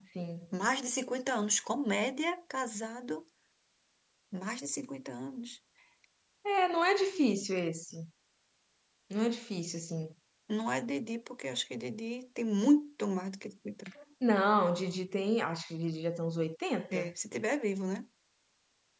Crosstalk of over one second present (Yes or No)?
No